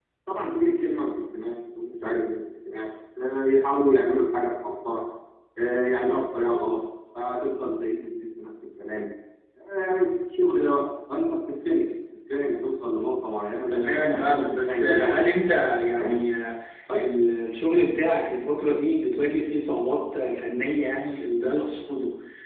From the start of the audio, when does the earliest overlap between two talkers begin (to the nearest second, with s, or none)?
14 s